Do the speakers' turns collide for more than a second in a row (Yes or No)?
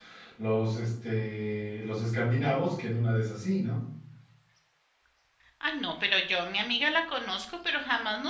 No